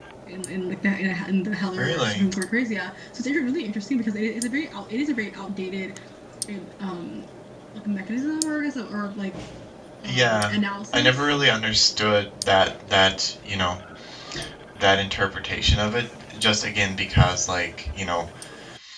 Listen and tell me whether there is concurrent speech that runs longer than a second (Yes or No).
No